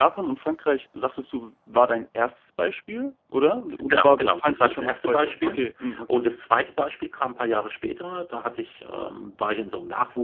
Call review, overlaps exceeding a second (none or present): present